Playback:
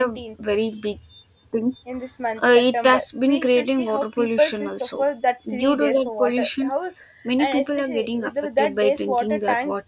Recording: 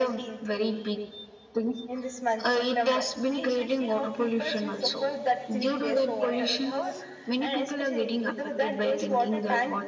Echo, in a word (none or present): present